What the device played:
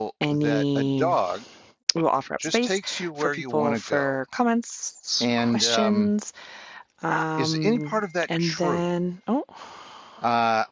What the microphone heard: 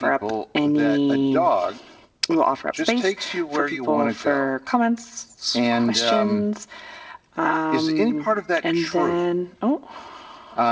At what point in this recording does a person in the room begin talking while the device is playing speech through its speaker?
none

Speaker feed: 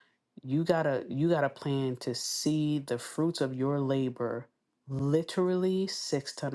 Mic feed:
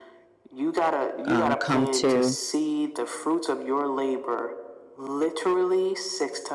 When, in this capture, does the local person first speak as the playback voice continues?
1.2 s

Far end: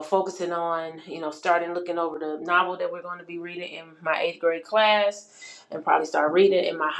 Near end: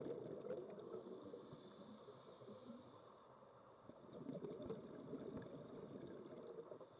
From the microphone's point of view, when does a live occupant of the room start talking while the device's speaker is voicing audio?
none

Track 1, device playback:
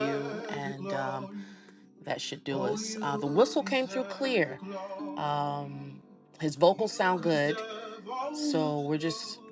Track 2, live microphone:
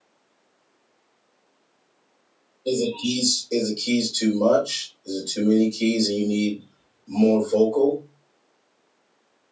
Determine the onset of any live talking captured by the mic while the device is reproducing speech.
2.6 s

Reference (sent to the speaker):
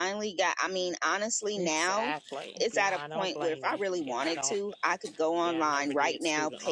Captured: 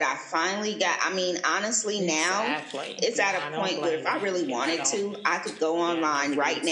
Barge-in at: none

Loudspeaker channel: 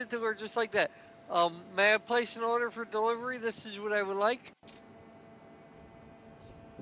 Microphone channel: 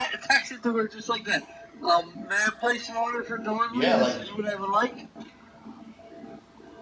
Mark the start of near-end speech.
3.6 s

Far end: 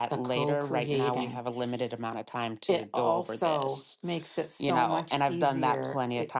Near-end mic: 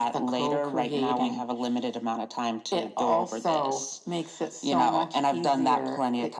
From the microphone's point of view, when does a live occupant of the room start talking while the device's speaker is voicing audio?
none

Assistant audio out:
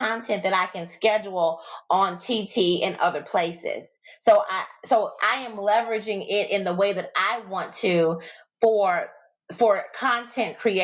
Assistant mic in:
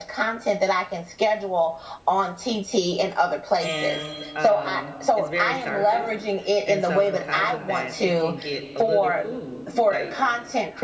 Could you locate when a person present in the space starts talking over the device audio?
3.6 s

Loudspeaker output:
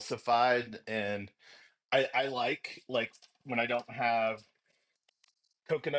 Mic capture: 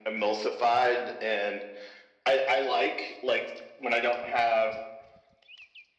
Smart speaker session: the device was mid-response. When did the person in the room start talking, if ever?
none

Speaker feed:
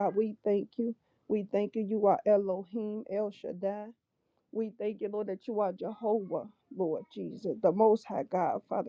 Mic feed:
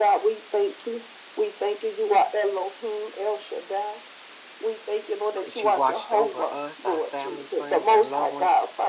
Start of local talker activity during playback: 5.4 s

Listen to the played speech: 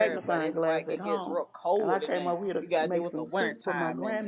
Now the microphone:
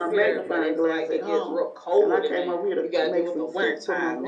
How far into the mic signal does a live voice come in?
none

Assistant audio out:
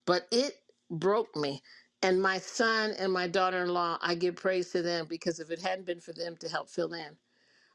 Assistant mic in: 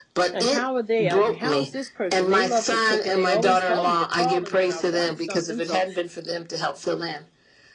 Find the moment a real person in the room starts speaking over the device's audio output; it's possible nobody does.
0.3 s

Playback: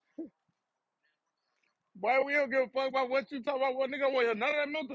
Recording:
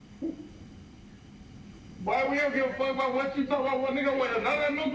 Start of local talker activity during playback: none

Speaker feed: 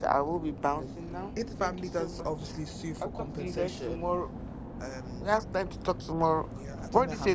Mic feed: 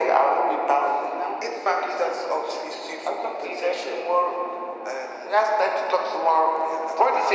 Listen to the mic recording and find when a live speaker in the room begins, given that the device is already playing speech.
none

